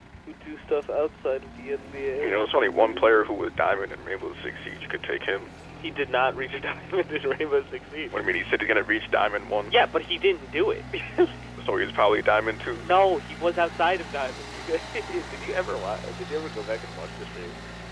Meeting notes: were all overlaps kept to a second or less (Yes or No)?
Yes